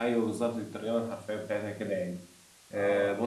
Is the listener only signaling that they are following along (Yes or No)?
Yes